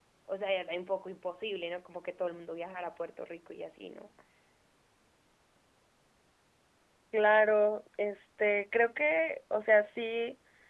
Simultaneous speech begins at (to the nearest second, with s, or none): none